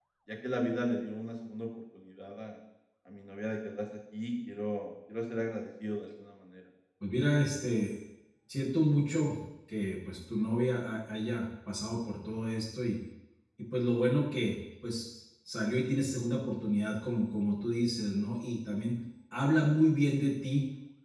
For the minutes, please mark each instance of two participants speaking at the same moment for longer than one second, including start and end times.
none

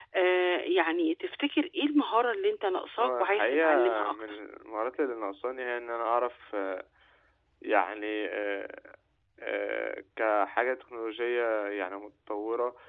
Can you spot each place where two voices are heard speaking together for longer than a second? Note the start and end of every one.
3.0-4.4

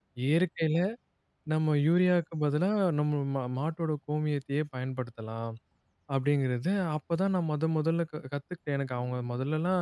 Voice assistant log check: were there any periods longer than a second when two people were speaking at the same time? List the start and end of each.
none

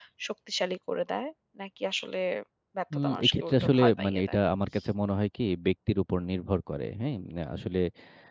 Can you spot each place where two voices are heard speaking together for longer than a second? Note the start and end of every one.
2.9-4.4

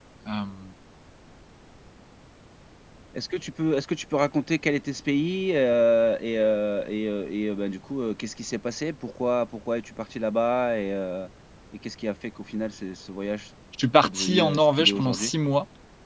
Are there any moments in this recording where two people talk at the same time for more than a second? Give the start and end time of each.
14.0-15.3

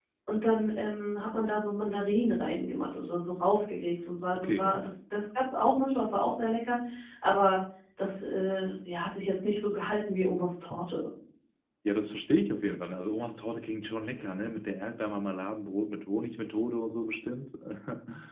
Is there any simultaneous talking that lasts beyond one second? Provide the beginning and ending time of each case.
none

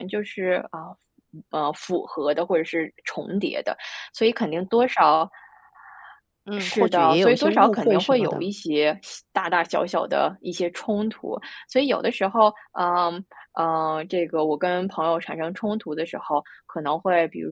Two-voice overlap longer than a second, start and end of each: 6.6-8.4

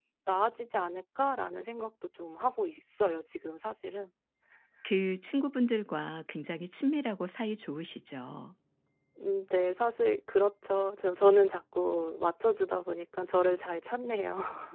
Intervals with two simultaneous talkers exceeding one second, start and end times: none

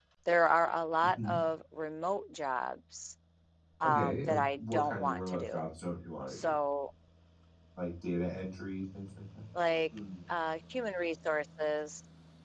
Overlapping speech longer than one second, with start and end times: 3.8-5.6

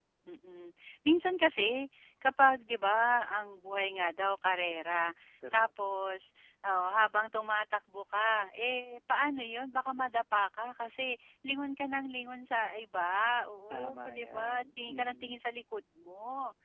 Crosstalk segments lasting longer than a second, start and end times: 13.7-15.4

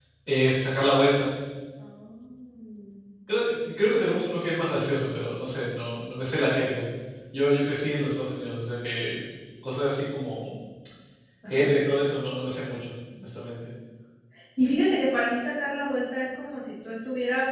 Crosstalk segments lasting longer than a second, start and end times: none

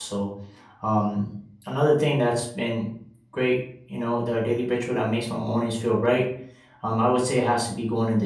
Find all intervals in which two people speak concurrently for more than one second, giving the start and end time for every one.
none

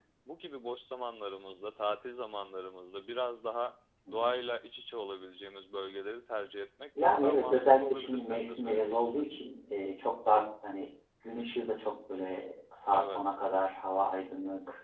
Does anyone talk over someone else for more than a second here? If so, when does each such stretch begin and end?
7.0-9.2

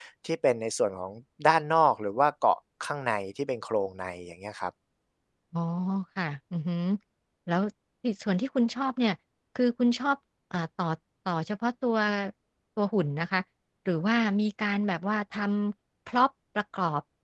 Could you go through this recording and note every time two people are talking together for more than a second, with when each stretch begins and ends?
none

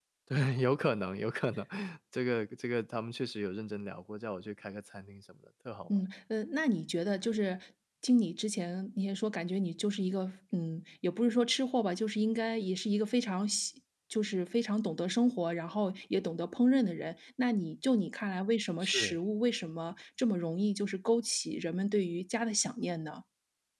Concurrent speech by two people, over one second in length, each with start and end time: none

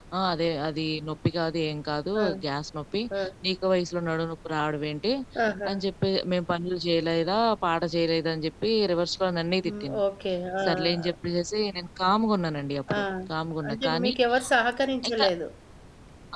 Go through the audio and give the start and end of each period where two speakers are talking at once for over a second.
none

